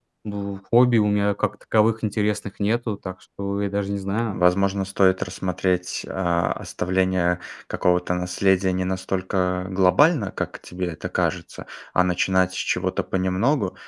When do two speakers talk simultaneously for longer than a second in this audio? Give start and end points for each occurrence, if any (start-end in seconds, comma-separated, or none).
none